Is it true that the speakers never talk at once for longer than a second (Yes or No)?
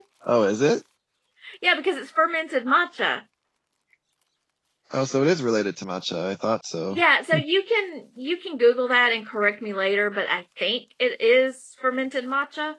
Yes